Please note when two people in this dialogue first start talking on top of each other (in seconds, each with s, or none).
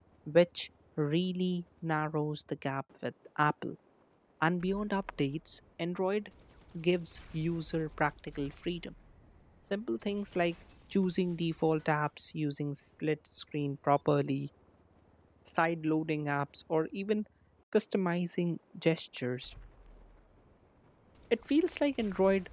none